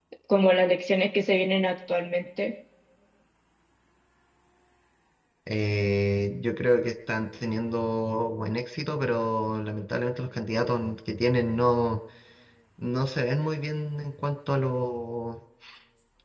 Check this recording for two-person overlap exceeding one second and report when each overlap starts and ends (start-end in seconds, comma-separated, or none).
none